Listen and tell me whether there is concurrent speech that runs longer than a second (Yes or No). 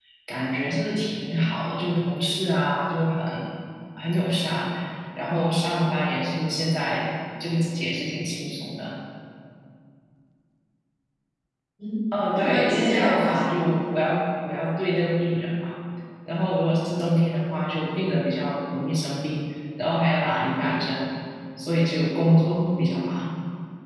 Yes